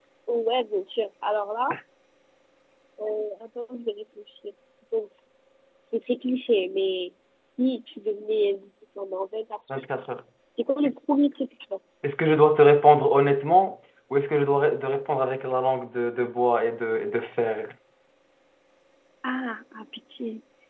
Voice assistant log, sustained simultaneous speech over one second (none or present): none